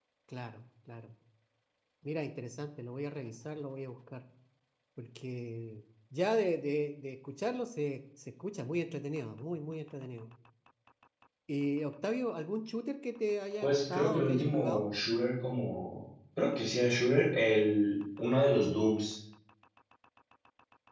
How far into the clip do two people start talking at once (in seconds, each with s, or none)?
13.6 s